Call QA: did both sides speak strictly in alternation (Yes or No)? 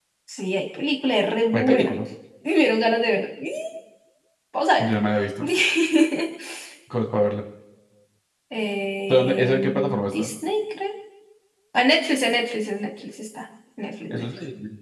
No